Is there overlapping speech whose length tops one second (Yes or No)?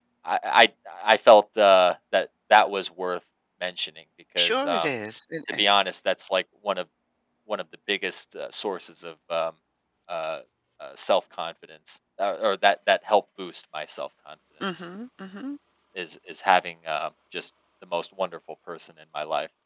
No